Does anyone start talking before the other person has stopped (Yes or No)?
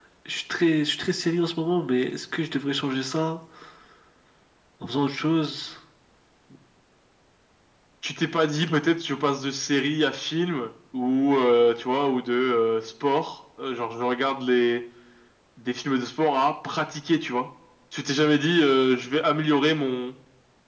No